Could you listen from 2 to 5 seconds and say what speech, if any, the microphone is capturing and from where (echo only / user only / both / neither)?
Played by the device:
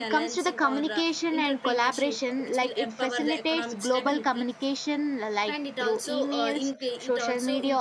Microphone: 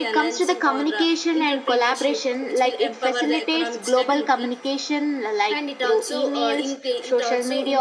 echo only